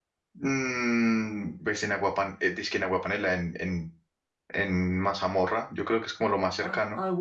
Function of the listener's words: taking over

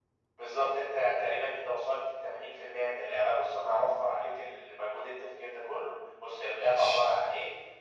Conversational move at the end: listening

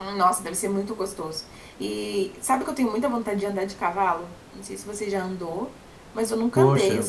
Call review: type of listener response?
listening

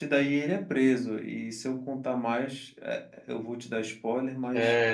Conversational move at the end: taking over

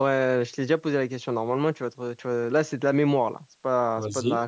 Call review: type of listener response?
listening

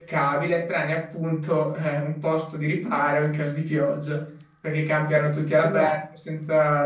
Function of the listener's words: listening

